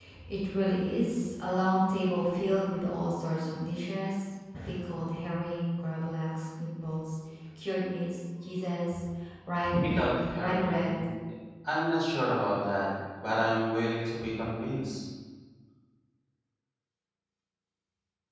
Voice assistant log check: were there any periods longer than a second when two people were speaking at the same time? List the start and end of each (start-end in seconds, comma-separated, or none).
9.7-11.0